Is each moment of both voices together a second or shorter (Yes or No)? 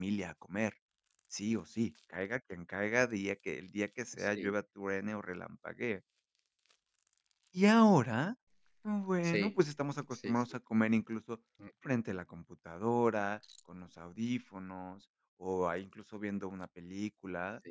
Yes